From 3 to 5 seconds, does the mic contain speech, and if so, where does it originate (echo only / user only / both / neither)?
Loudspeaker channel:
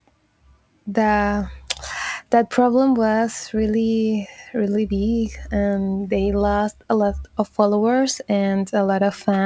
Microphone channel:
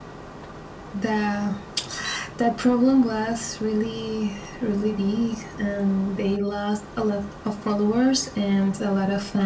echo only